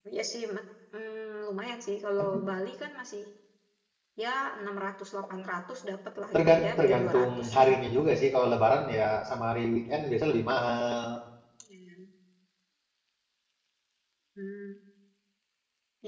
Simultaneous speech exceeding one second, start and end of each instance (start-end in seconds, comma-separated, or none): 6.3-7.7